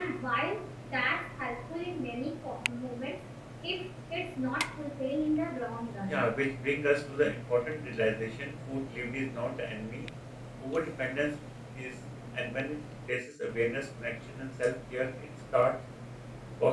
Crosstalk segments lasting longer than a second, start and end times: none

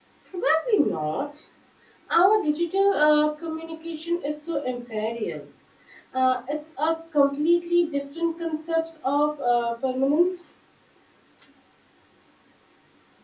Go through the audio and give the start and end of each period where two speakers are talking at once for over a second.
none

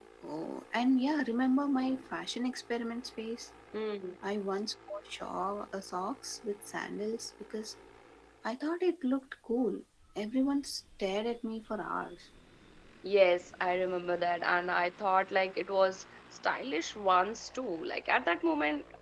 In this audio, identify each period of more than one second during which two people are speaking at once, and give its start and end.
none

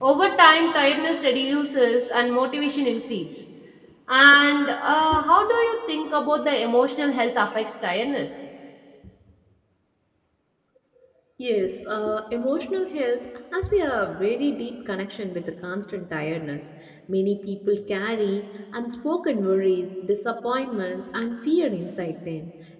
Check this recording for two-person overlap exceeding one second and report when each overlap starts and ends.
none

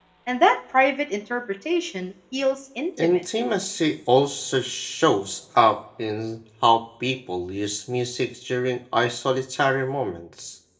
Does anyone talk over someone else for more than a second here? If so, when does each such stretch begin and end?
none

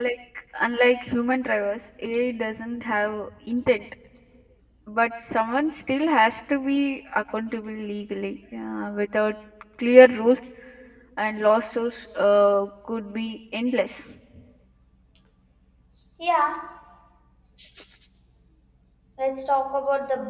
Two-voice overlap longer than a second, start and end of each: none

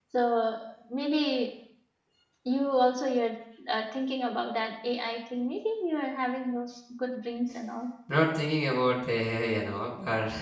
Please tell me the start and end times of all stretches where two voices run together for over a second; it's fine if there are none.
none

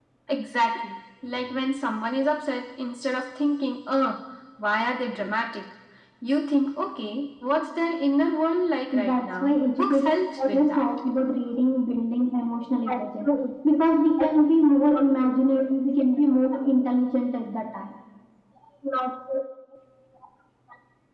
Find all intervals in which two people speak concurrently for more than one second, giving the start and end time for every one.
8.9-10.8

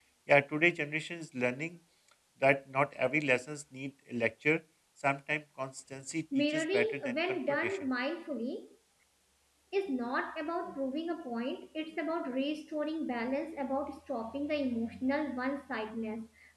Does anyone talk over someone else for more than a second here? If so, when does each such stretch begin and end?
6.3-7.8

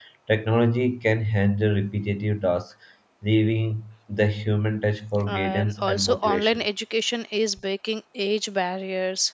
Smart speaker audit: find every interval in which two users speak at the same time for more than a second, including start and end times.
5.3-6.6

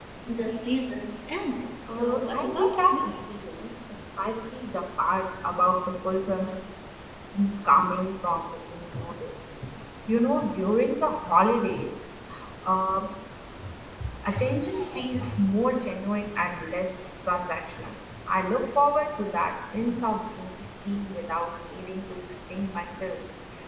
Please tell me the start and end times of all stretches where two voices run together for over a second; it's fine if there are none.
1.9-3.1

